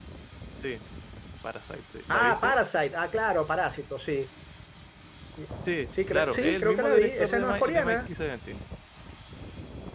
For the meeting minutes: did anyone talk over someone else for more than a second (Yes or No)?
Yes